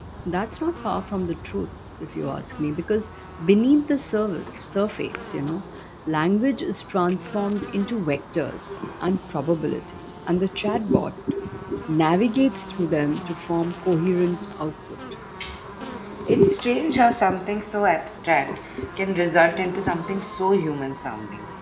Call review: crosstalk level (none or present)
none